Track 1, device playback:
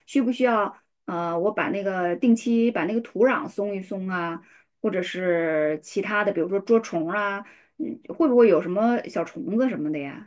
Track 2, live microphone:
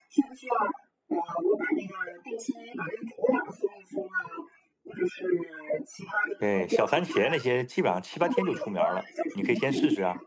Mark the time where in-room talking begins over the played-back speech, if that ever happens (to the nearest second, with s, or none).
6 s